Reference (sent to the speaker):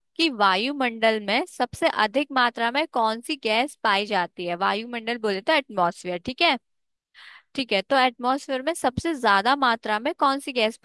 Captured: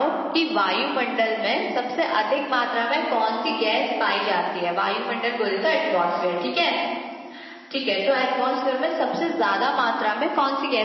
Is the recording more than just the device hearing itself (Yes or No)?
No